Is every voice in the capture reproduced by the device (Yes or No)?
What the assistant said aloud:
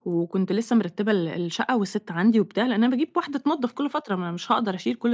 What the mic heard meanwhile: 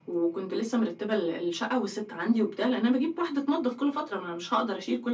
Yes